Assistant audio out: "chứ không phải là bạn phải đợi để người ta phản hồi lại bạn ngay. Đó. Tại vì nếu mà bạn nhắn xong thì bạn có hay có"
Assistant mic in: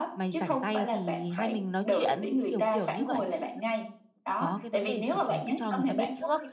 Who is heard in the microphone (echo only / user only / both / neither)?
both